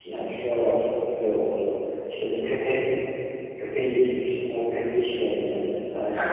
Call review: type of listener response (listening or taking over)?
taking over